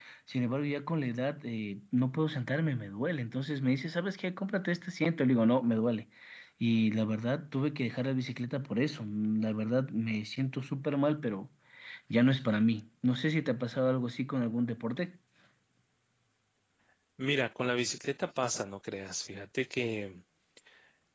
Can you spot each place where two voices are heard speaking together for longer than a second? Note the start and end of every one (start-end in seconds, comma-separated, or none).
none